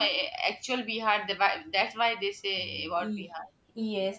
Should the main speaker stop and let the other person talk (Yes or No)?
Yes